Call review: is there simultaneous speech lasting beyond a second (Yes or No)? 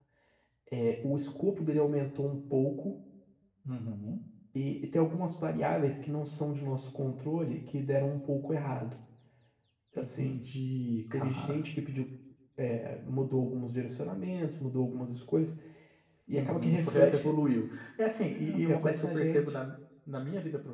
Yes